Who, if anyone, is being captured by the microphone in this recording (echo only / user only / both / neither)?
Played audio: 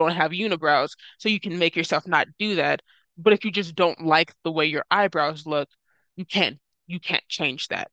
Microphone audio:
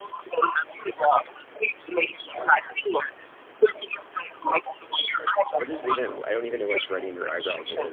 both